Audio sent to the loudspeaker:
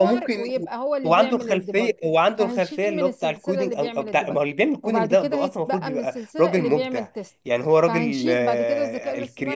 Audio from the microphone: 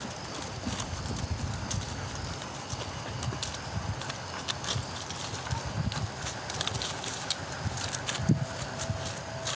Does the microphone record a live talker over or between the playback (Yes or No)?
No